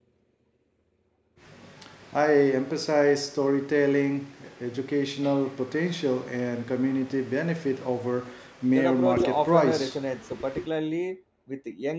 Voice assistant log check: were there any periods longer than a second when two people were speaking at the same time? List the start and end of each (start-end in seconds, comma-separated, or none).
8.7-9.9